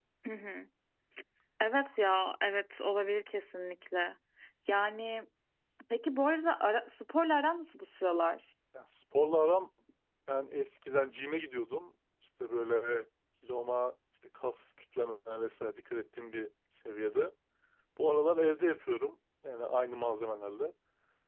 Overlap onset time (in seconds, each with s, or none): none